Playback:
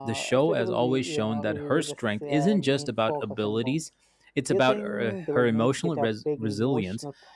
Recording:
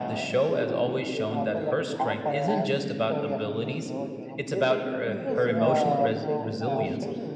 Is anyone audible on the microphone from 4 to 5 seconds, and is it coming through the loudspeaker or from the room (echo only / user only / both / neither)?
both